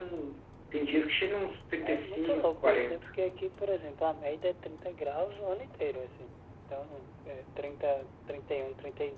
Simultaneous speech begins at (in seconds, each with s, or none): 1.8 s